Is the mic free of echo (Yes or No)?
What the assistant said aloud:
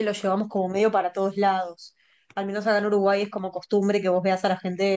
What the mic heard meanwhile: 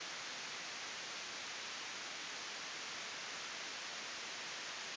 Yes